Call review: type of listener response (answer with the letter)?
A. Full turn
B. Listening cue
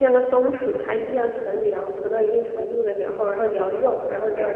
A